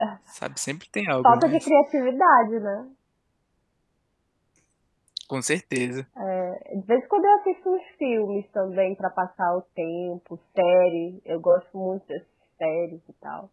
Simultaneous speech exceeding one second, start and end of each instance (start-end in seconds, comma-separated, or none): none